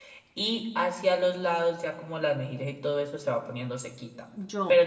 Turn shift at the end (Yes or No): No